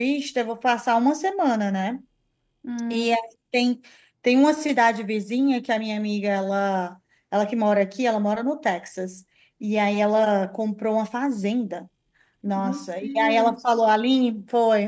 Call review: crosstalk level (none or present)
present